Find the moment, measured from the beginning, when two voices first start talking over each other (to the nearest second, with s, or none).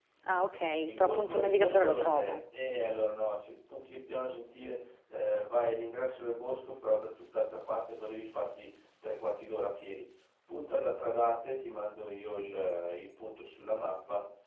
1 s